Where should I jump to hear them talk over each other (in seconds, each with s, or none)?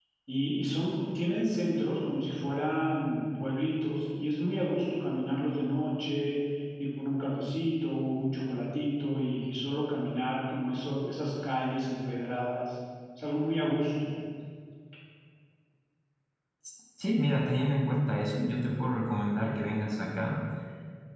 none